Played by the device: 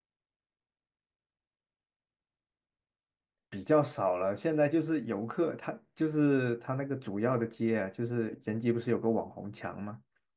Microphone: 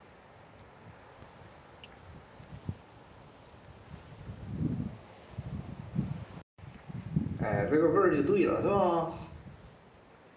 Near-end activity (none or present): present